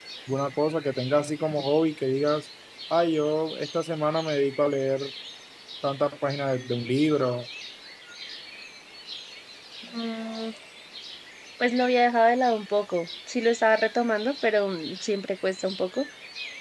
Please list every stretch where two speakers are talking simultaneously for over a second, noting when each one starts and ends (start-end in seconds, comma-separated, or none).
none